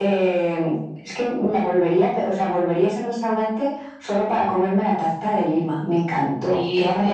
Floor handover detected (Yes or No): Yes